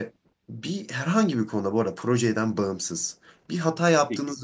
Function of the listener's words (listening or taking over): listening